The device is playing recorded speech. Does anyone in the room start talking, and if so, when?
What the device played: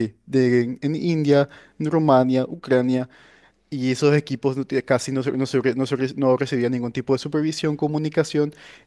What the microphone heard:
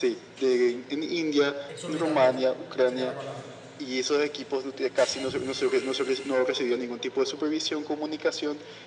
1.6 s

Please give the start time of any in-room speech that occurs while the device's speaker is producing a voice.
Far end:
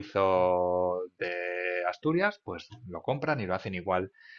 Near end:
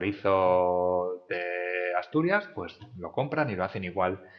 none

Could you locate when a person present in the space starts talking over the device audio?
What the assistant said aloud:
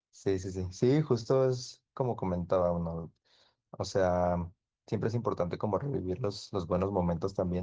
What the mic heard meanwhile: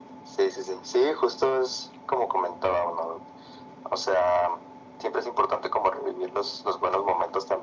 none

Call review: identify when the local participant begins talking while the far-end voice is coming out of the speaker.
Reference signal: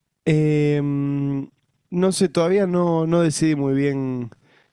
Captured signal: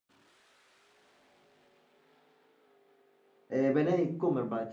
3.5 s

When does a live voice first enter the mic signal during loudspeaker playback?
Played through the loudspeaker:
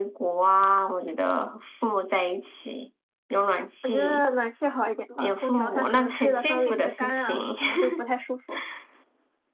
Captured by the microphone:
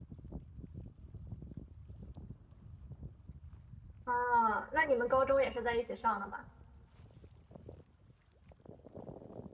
4.0 s

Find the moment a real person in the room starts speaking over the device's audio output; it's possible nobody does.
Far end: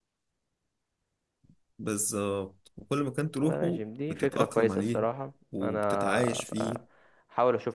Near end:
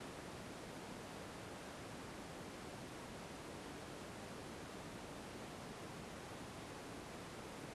none

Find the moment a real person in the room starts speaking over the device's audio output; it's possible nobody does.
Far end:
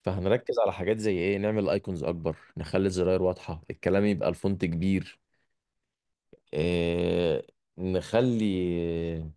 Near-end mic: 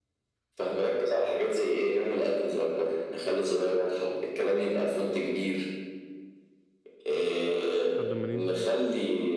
8.0 s

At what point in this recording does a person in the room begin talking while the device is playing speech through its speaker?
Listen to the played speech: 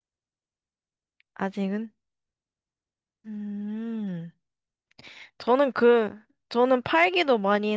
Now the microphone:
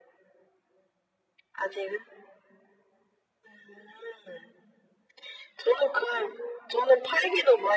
none

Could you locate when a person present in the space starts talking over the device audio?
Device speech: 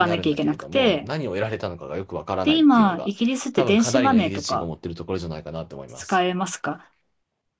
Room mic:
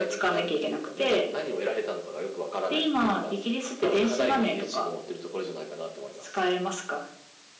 none

